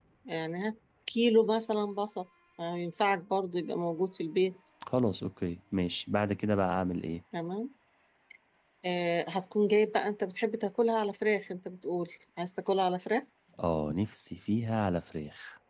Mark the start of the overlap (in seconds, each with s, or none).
none